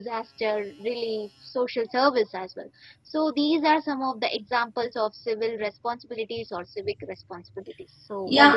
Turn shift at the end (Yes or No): Yes